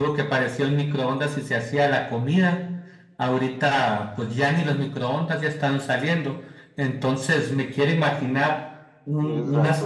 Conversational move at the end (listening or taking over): listening